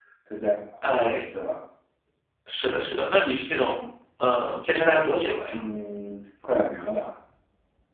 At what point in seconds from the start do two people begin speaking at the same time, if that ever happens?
none

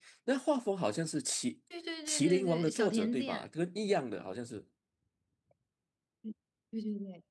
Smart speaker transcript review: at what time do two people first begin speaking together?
2.1 s

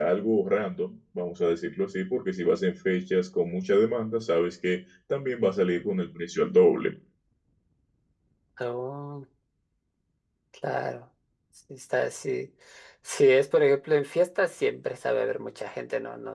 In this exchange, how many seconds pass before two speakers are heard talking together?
none

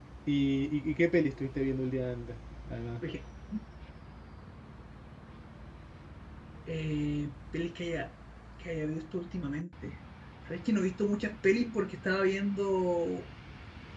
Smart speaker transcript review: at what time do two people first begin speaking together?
none

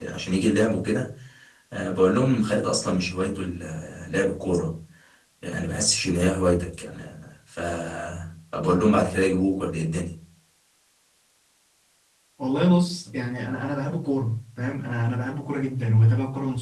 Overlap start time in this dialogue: none

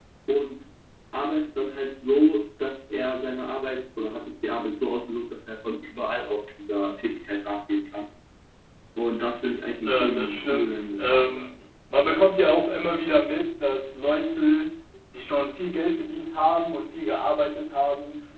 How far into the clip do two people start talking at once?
9.8 s

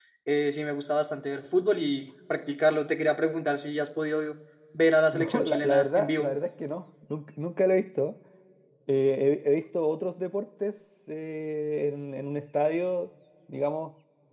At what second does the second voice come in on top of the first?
5.1 s

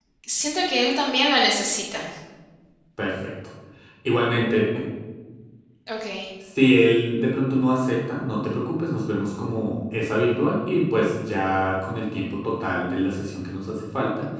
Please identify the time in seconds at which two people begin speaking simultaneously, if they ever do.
none

